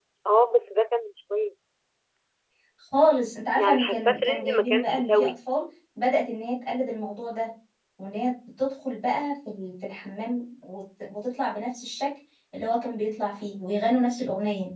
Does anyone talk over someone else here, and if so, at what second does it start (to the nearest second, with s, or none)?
4 s